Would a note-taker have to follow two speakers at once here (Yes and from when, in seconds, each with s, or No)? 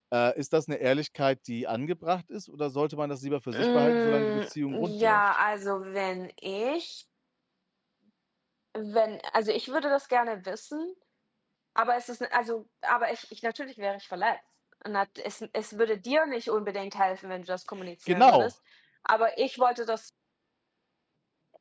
Yes, from 3.5 s